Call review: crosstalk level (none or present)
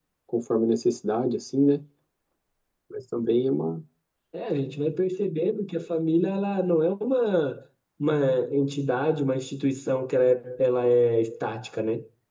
none